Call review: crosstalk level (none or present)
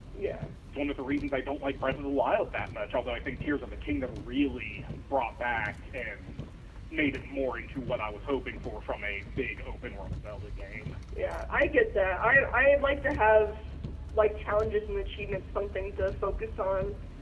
none